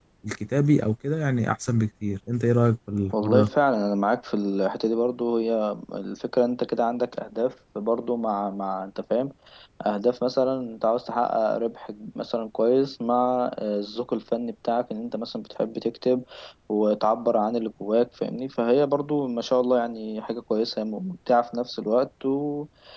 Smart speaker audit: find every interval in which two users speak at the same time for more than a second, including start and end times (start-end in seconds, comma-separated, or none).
none